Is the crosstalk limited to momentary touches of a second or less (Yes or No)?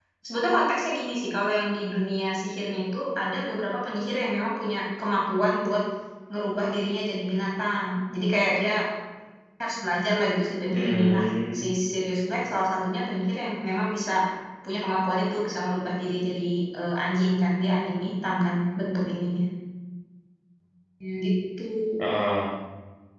Yes